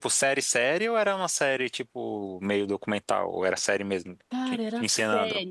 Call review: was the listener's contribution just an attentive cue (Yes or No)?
No